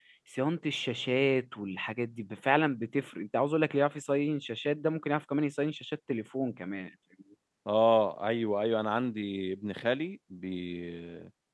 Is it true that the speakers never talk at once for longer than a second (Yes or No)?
Yes